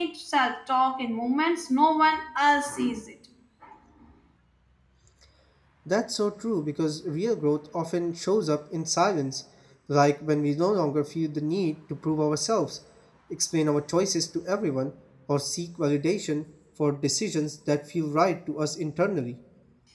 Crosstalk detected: No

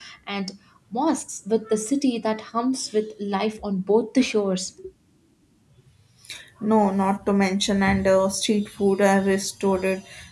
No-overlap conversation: Yes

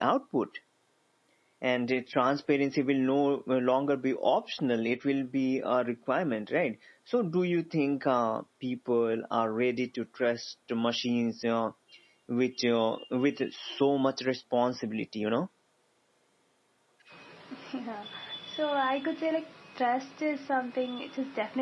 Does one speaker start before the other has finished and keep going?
No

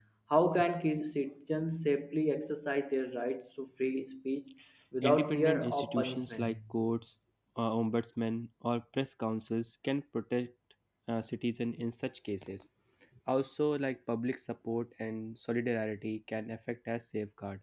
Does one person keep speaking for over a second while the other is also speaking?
Yes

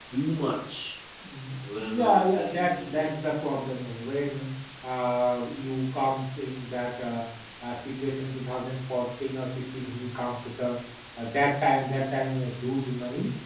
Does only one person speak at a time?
No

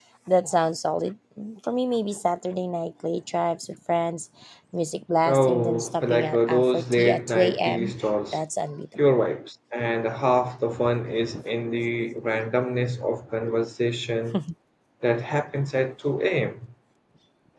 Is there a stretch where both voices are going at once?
Yes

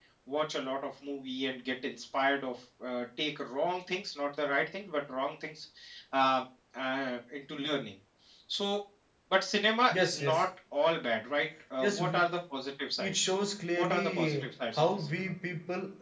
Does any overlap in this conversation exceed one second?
Yes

